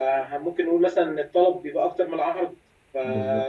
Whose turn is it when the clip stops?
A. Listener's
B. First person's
B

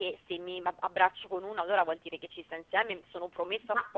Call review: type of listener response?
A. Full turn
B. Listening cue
B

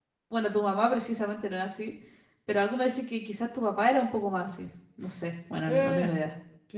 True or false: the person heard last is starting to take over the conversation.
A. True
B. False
A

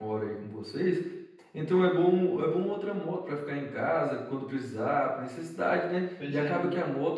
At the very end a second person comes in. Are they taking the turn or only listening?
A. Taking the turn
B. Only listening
B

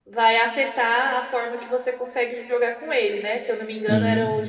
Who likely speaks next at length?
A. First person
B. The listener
A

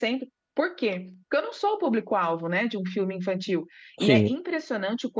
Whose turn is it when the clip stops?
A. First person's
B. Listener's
A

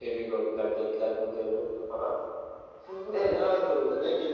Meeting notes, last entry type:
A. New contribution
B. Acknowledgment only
B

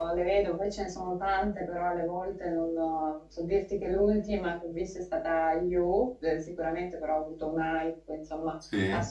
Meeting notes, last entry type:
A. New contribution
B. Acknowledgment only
B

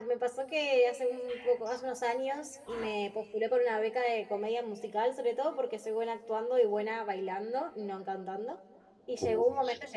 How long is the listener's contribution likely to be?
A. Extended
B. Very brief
B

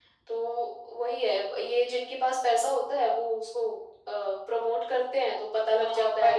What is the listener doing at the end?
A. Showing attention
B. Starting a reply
B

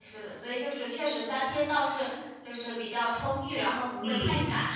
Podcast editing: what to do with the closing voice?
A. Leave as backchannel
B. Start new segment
B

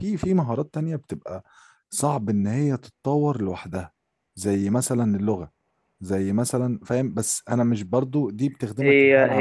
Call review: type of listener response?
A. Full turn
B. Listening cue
A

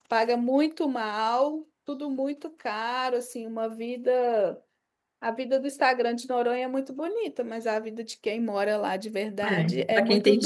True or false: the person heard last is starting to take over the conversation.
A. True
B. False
A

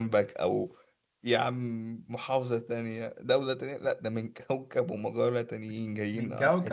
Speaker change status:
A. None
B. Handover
B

